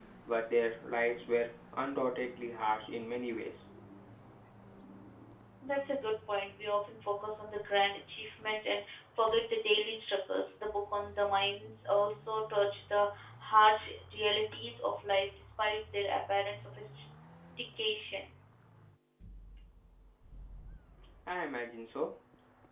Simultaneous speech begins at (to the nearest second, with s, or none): none